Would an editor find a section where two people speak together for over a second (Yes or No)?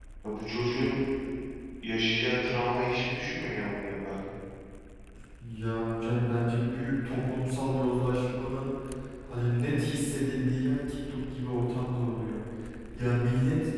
No